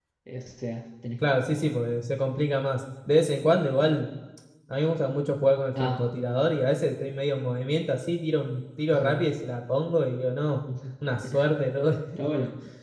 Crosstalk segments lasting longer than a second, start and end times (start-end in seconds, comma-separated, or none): none